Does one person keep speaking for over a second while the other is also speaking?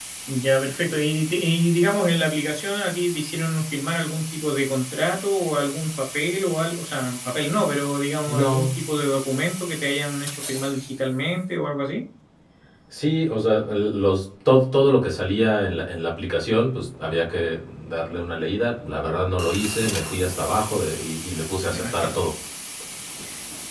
No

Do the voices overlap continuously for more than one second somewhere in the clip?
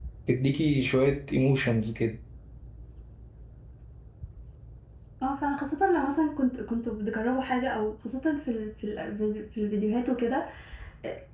No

